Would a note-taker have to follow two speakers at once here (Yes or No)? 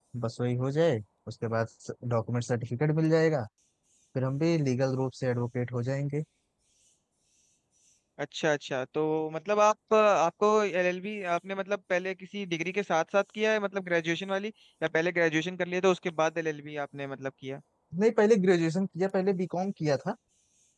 No